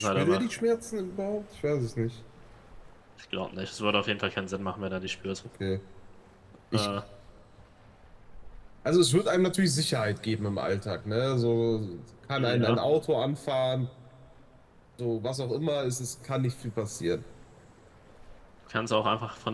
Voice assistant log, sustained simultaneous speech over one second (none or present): none